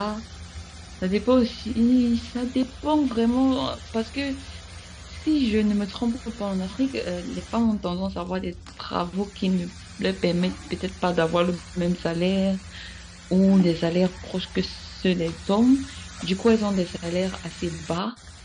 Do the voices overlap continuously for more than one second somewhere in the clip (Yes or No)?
No